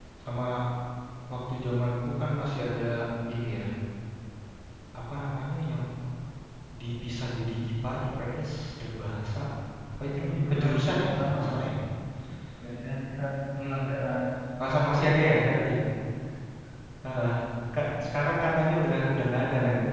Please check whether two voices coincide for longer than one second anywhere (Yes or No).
Yes